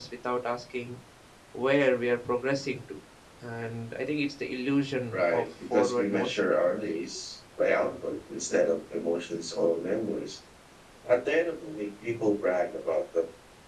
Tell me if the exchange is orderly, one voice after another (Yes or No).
No